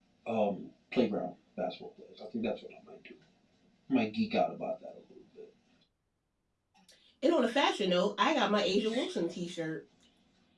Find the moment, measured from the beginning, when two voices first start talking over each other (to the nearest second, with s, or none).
none